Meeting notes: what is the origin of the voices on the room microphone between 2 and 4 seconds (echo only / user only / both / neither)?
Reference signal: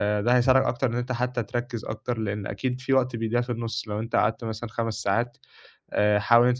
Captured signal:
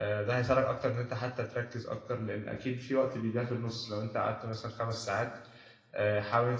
echo only